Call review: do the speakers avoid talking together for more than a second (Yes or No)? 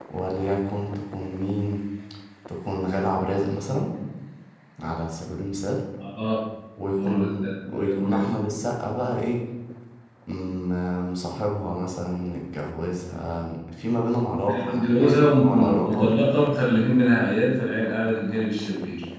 No